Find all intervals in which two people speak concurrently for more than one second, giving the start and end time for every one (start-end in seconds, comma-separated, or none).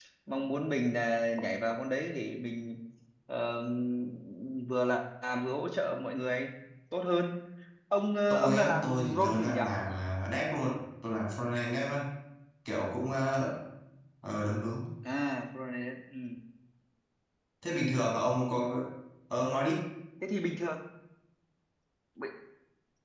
8.3-9.6